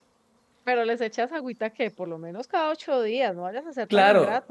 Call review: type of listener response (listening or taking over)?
taking over